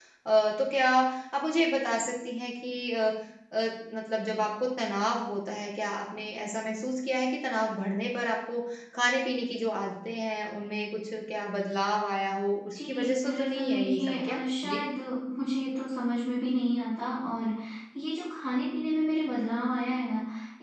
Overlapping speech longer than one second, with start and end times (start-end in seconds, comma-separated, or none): 12.8-14.8